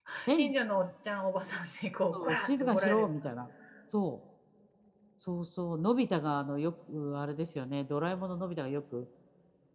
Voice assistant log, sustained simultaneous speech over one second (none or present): present